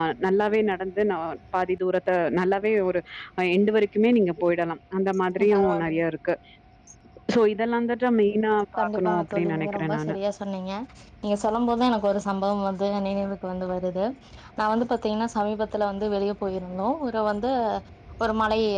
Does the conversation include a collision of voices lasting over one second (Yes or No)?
Yes